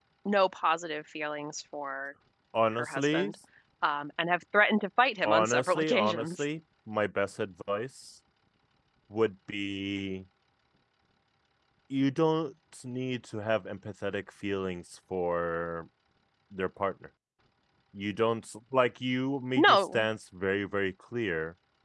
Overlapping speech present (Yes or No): Yes